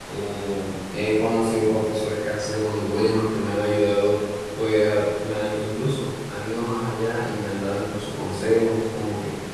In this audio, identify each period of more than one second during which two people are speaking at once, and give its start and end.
none

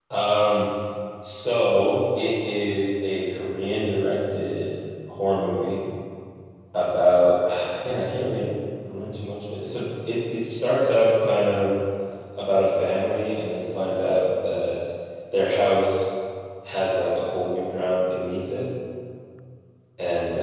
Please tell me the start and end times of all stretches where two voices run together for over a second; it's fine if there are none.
none

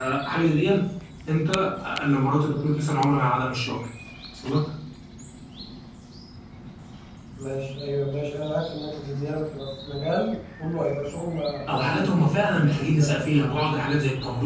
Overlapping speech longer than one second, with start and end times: 11.7-13.6

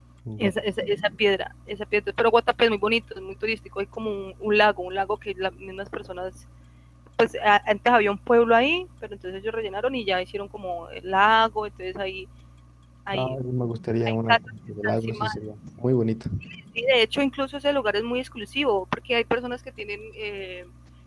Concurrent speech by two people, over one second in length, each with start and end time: 14.1-15.3

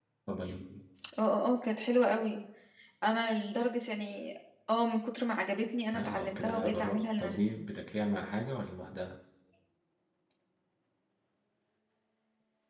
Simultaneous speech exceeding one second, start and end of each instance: 5.9-7.5

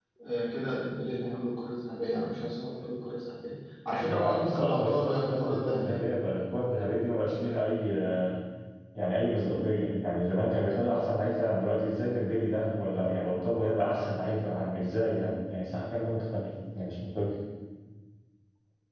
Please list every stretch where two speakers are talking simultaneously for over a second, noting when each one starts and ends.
4.0-6.0

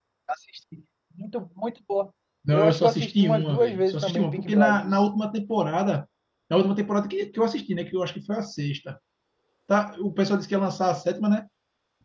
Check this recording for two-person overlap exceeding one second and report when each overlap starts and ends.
2.5-5.0

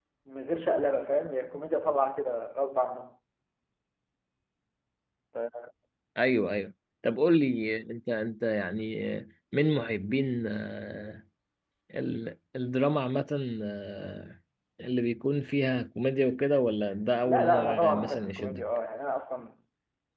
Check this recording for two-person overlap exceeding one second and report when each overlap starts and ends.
17.3-18.6

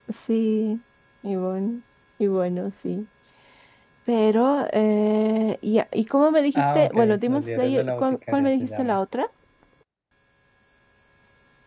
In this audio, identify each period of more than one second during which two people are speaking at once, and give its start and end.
6.5-9.0

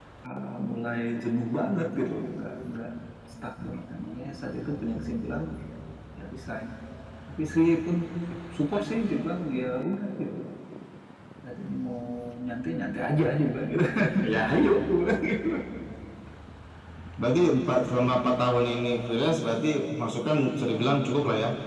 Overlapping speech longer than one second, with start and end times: none

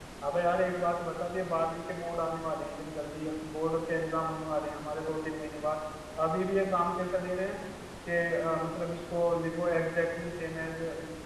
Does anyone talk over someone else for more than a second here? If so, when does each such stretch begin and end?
none

